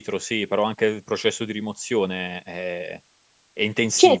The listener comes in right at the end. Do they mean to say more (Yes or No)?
Yes